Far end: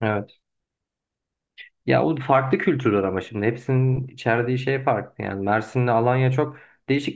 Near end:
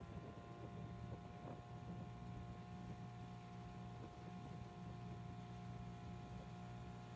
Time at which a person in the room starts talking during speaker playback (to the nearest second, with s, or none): none